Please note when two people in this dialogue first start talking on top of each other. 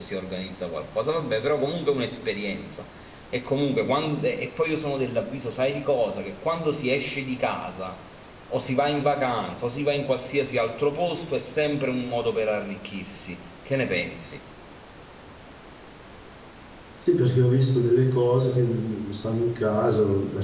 none

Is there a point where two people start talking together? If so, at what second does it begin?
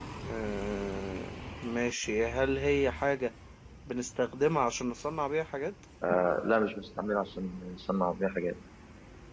none

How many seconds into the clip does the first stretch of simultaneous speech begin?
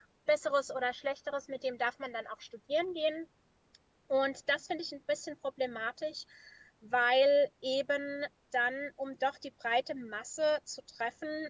none

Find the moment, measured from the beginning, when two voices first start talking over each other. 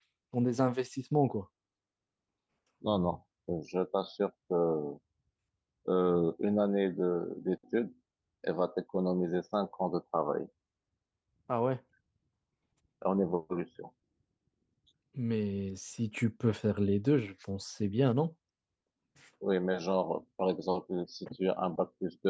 none

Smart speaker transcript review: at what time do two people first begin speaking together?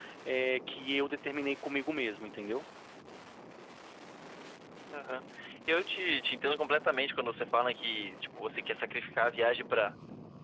none

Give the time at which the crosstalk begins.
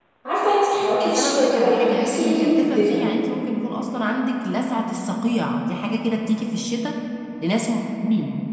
1.0 s

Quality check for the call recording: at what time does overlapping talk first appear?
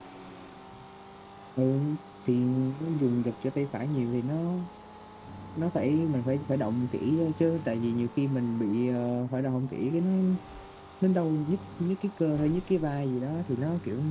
none

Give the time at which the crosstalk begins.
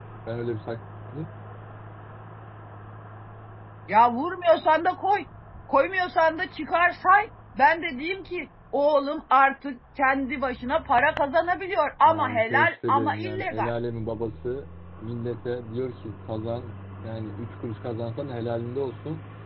12.1 s

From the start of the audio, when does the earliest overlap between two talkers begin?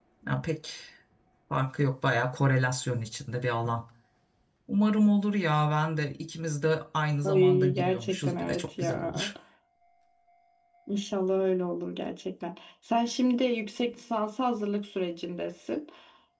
7.2 s

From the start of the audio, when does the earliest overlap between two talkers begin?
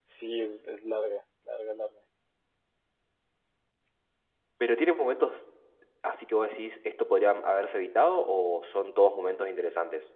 none

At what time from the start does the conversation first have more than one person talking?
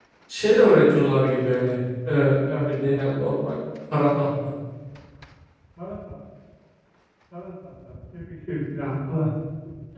none

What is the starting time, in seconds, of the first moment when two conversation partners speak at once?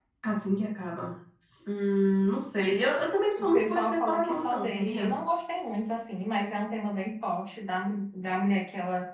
3.4 s

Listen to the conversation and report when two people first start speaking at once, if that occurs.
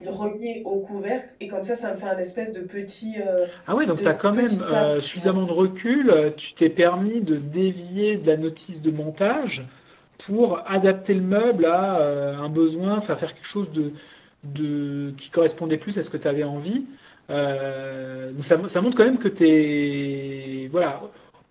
3.9 s

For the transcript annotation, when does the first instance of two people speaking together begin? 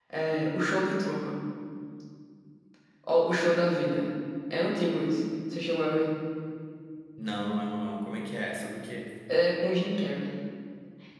none

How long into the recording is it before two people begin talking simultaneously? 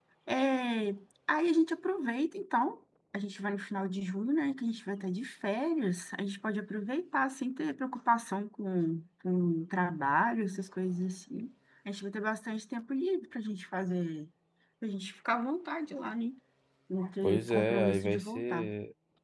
17.2 s

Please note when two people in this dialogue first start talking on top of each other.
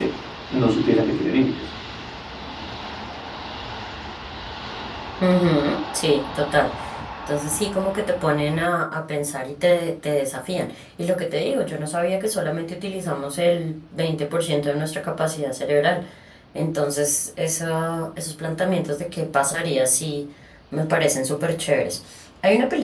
none

